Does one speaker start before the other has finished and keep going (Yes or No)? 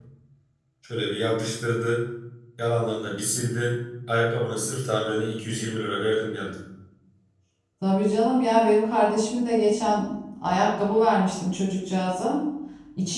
No